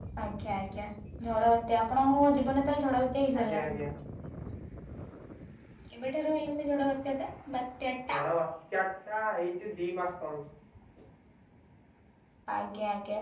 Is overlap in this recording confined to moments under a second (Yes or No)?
Yes